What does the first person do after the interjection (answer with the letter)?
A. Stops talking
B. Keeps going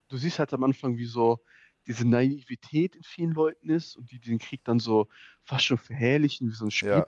B